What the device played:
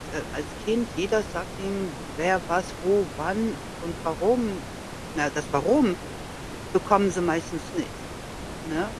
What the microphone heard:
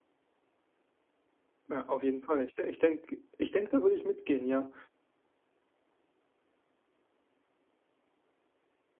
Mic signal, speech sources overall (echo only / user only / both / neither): user only